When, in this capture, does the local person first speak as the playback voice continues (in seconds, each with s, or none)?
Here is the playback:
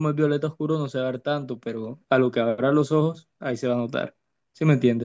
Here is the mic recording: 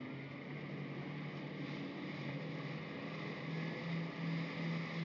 none